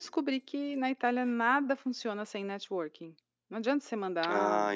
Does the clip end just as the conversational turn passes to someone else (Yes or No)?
Yes